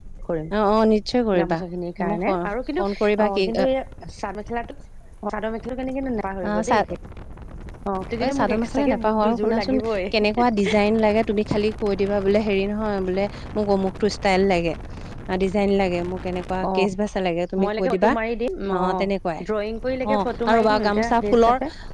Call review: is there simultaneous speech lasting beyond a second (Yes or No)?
Yes